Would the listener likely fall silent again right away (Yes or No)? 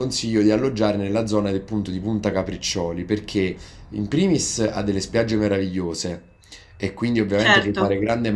Yes